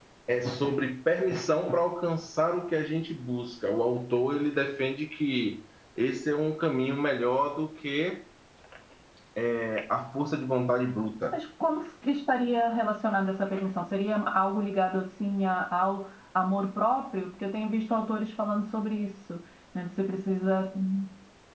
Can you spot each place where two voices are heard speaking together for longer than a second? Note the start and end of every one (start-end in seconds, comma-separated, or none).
none